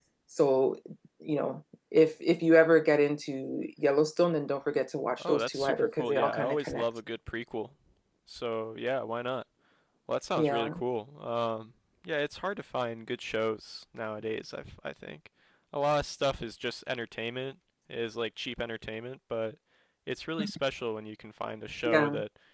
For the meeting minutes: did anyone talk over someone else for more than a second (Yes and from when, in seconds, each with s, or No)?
Yes, from 5.2 s